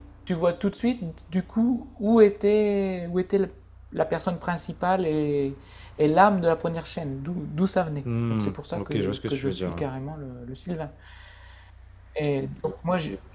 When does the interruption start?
8 s

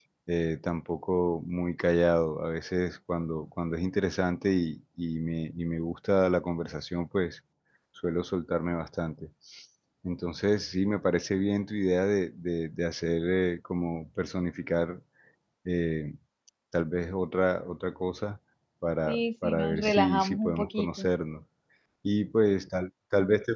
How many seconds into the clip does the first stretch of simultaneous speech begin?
19 s

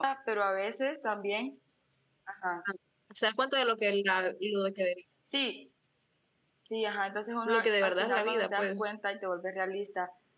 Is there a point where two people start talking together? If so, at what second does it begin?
7 s

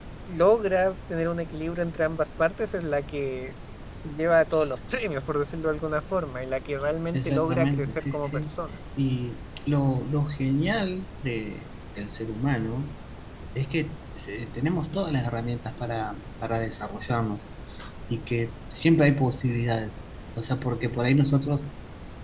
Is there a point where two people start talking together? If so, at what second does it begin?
7 s

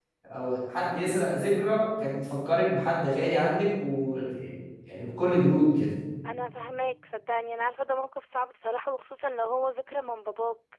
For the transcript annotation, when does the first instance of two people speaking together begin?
none

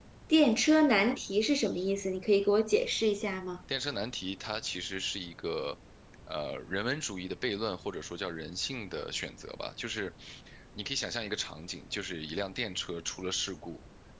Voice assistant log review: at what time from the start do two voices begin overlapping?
none

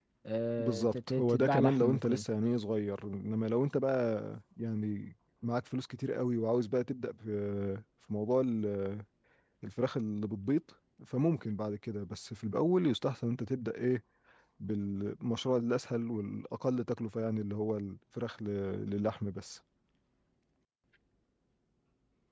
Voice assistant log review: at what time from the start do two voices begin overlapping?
1 s

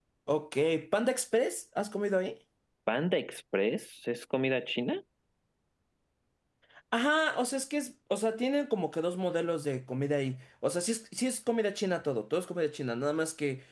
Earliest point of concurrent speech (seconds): none

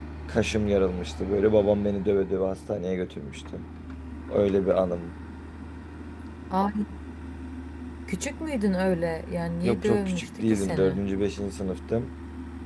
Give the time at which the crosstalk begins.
10 s

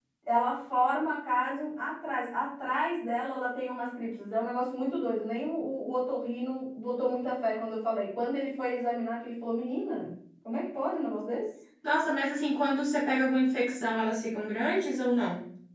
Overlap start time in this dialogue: none

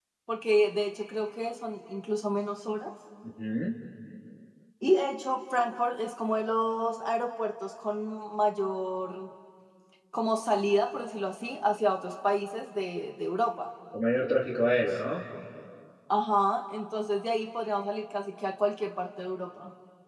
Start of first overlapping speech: none

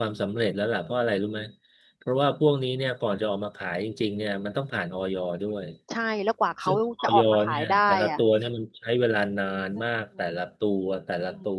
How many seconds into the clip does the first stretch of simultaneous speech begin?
7 s

